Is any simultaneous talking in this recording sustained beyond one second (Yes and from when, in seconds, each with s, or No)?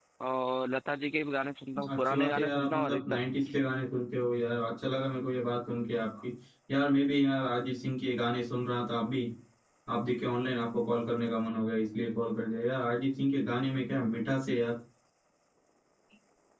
Yes, from 1.8 s